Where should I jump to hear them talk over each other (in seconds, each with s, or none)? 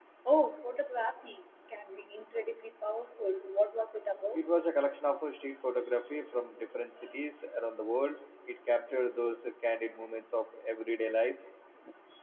none